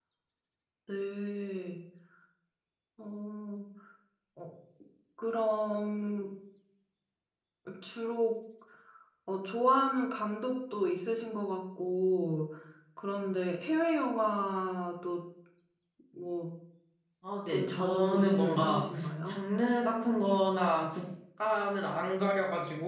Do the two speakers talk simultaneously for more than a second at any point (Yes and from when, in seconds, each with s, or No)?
Yes, from 17.5 s